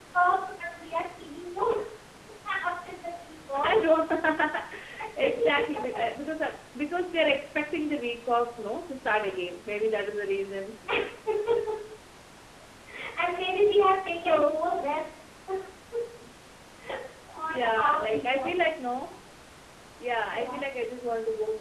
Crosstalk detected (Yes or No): Yes